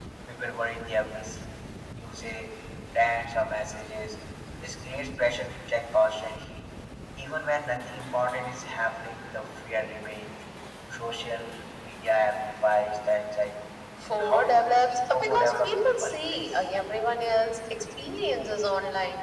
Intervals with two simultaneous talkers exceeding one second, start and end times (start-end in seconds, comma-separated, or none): 14.1-16.4